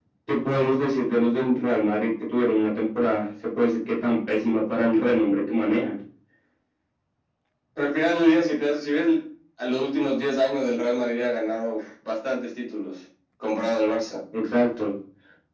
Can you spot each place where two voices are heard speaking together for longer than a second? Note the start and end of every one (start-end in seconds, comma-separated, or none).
none